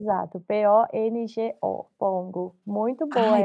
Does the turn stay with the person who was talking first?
Yes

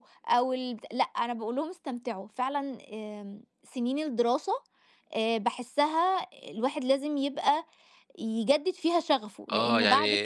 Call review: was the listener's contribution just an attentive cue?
No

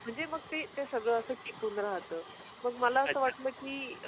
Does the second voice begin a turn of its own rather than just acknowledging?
No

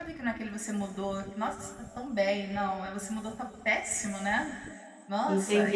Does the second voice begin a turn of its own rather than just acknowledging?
Yes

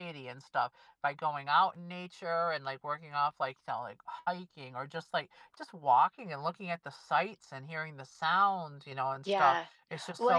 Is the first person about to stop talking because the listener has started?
Yes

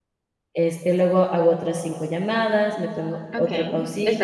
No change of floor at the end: No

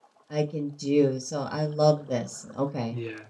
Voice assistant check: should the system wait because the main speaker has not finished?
No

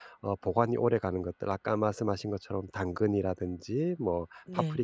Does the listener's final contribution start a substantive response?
No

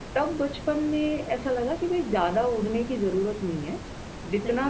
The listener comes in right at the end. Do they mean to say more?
No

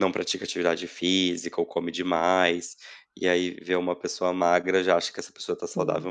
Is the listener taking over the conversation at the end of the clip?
No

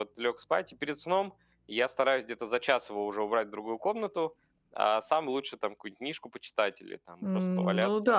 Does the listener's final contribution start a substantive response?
Yes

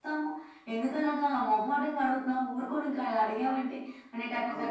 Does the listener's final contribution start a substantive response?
No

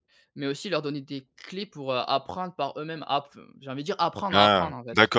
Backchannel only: No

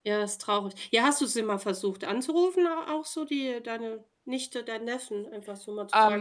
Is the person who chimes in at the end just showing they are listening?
No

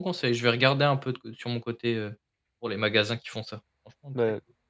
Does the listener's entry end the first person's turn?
Yes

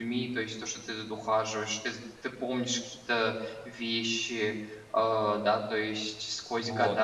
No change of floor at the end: No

